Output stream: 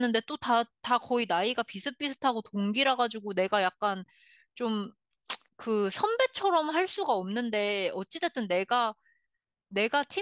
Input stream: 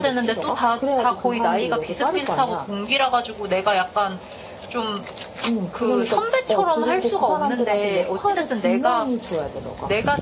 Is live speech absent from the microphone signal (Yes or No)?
No